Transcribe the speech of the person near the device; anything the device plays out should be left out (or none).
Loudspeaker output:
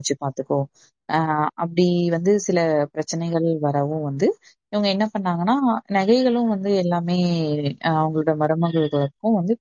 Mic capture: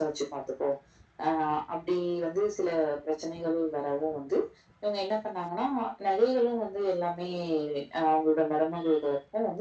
none